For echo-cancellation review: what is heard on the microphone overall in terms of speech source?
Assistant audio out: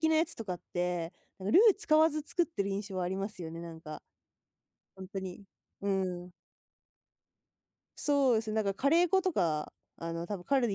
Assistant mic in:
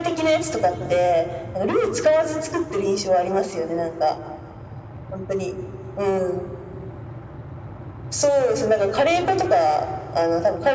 echo only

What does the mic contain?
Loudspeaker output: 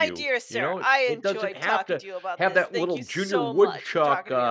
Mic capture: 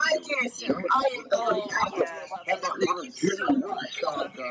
both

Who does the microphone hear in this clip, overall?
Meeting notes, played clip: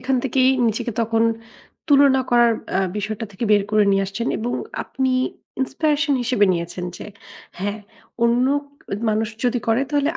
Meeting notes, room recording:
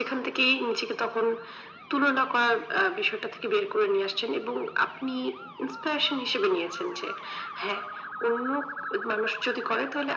echo only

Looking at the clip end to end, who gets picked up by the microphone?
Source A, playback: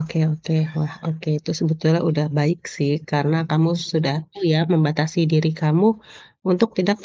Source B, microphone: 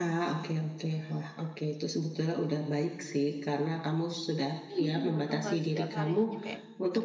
both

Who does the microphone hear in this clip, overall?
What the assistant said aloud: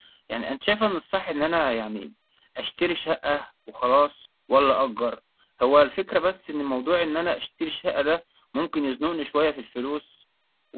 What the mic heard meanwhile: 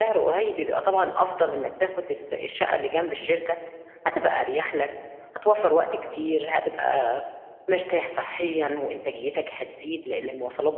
user only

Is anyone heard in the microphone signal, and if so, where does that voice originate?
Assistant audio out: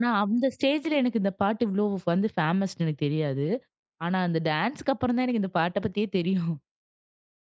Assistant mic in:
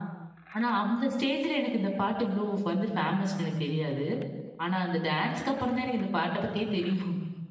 echo only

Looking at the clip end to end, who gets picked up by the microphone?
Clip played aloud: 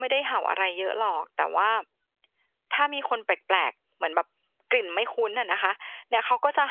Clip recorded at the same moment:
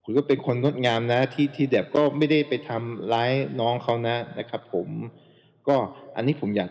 user only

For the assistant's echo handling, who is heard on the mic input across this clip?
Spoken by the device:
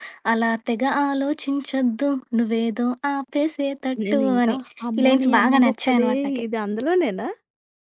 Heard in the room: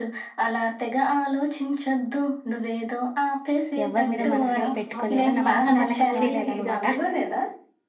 both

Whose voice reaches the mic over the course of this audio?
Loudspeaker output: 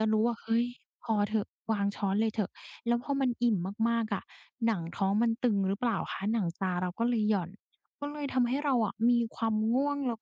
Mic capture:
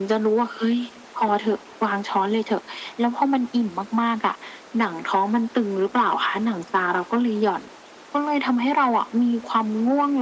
echo only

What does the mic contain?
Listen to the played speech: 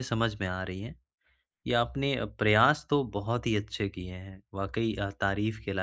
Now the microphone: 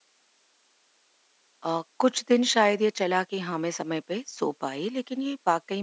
user only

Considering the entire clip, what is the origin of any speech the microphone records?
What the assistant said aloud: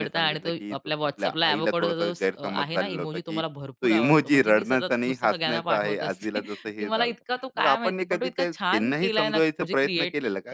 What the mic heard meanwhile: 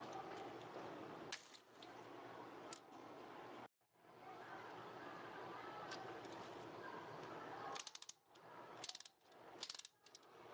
neither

